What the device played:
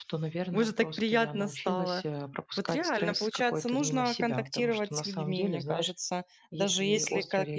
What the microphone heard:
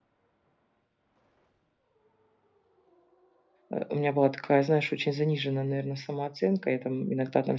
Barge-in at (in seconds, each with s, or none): 3.7 s